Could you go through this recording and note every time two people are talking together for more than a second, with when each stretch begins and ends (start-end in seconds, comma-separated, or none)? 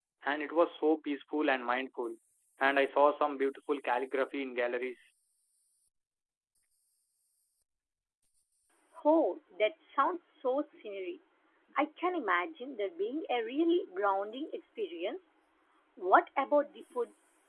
none